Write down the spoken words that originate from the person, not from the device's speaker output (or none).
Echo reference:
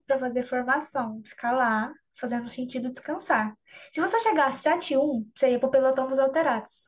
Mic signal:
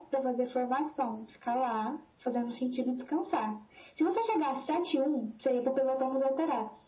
none